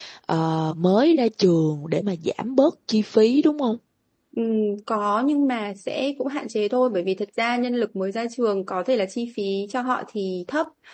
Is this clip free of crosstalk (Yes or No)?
Yes